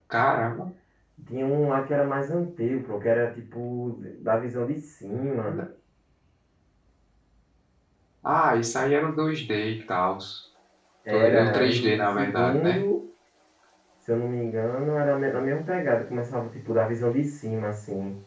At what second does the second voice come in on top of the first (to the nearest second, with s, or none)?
11 s